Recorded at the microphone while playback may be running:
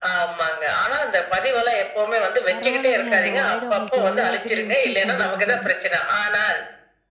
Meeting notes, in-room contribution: present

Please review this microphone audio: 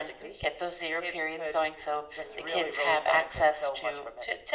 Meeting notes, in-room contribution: none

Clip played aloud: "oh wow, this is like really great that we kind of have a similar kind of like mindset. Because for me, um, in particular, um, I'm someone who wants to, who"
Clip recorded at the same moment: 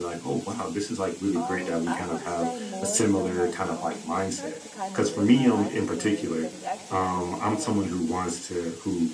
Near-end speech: present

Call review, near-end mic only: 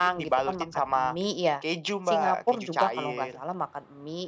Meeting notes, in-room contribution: none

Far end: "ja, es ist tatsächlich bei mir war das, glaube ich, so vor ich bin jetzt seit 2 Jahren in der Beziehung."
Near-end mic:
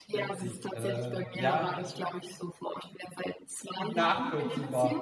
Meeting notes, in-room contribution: present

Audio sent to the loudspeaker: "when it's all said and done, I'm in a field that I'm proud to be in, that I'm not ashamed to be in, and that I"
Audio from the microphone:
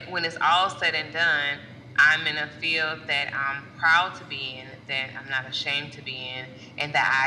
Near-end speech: none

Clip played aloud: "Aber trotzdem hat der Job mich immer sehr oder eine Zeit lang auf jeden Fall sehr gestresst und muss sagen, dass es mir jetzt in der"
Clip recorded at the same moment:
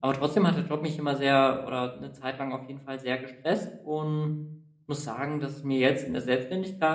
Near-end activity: none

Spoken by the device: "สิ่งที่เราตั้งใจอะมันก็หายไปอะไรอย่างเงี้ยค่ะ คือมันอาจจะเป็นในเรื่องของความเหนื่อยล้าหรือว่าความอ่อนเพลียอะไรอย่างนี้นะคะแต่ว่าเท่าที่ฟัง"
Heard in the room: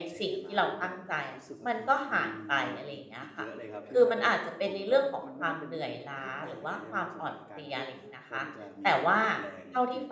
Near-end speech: present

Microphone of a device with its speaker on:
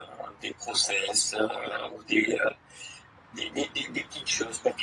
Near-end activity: none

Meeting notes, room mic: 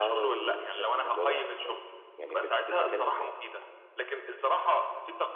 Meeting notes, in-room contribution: present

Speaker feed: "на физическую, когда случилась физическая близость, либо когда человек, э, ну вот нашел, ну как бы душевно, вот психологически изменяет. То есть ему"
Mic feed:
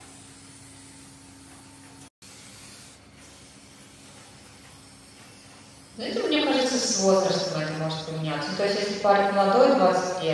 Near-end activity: present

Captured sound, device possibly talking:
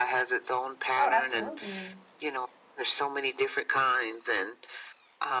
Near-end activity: present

